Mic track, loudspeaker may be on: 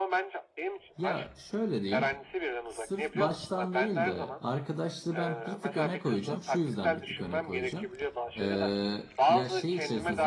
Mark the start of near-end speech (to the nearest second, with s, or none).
1 s